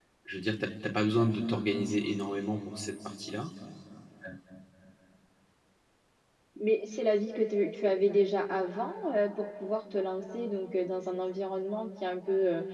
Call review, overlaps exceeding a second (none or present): none